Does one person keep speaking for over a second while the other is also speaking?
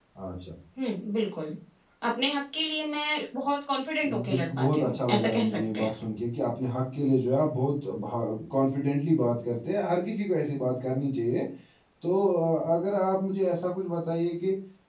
Yes, from 4.3 s

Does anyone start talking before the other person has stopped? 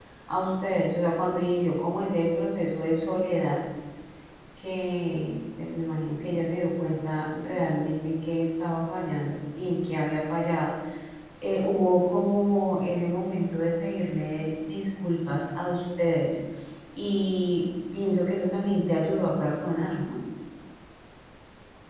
No

